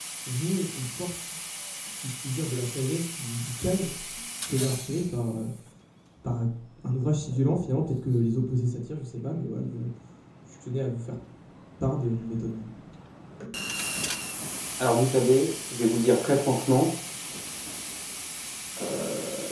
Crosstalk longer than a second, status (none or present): none